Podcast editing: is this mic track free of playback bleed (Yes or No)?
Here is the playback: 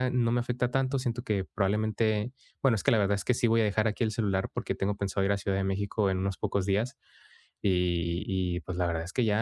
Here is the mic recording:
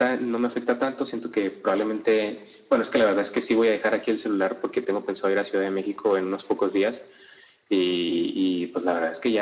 No